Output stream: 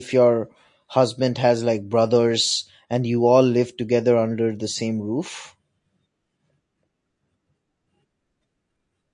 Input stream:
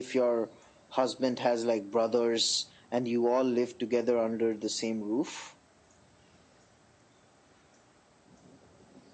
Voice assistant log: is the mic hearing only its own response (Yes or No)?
Yes